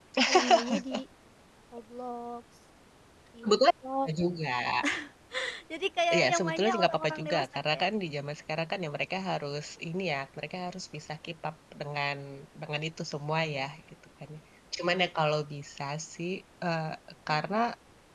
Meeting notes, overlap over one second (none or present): present